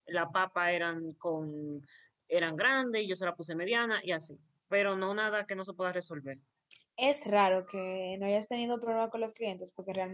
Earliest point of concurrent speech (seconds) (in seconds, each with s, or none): none